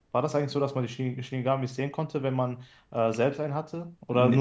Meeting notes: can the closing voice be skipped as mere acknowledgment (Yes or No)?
No